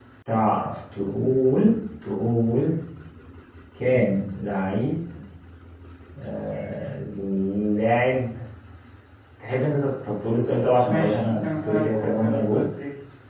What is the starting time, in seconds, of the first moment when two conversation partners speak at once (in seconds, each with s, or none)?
10.8 s